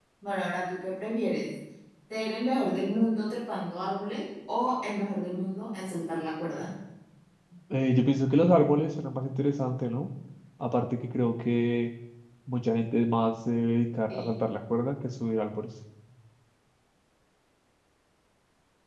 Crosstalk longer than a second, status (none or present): none